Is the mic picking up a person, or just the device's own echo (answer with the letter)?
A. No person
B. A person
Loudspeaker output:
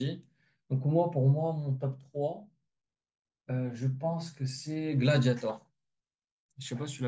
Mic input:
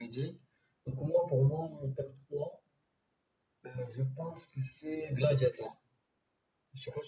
A